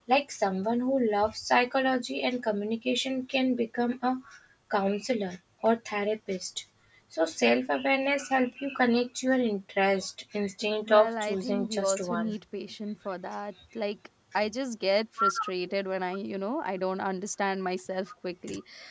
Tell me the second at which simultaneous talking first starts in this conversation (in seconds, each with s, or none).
10.9 s